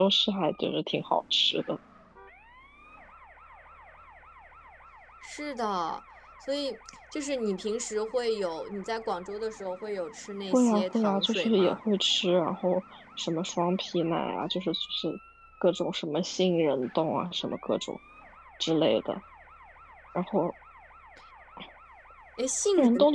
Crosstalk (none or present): present